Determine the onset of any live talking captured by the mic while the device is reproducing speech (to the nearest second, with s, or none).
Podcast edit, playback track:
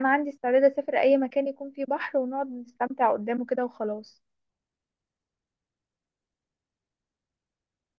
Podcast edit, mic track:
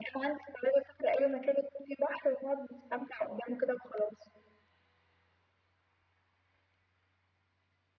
none